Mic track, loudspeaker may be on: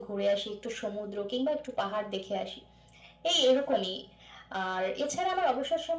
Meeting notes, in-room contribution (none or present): none